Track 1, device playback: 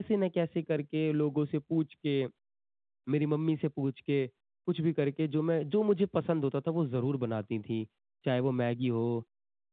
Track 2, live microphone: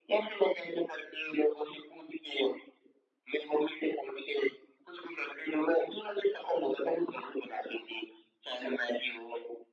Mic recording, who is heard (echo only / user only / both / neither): echo only